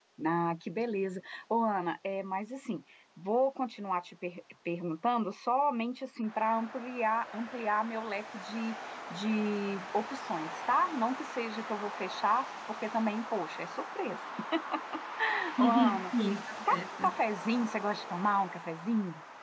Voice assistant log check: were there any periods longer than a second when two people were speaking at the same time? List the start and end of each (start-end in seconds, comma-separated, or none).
none